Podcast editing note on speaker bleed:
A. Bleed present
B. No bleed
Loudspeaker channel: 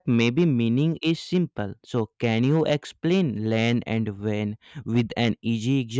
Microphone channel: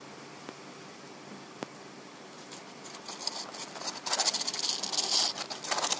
B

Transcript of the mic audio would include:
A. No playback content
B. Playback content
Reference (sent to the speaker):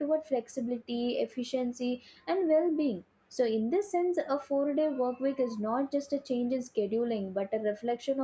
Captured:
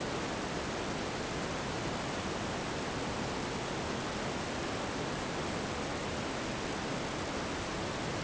A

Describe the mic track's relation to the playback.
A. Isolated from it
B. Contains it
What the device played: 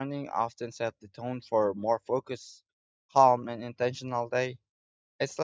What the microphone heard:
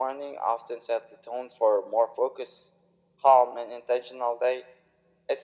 B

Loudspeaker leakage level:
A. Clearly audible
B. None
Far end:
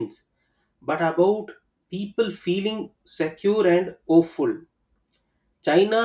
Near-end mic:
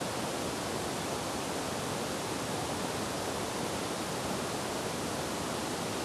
B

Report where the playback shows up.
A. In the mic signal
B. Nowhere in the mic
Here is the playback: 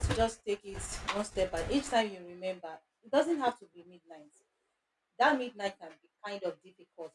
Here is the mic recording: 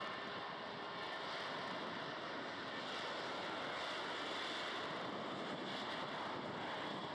B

